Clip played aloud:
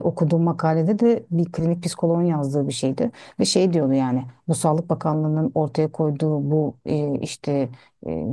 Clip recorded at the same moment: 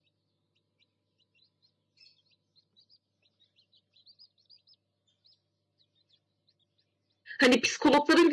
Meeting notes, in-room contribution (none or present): present